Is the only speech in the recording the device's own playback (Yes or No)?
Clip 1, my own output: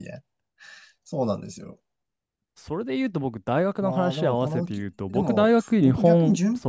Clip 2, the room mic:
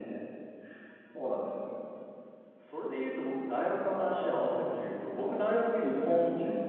Yes